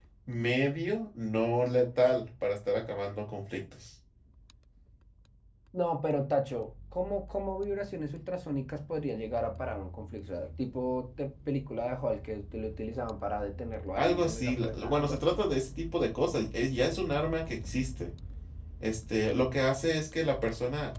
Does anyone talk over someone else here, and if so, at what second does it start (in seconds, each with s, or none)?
14.0 s